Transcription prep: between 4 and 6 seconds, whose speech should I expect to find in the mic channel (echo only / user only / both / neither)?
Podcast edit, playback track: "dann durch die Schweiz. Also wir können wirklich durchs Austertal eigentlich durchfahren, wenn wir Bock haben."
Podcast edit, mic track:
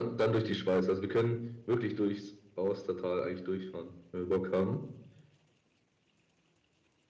echo only